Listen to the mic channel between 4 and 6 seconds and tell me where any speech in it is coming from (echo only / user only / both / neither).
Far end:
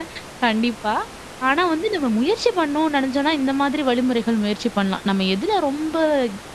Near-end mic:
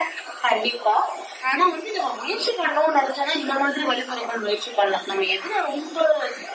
echo only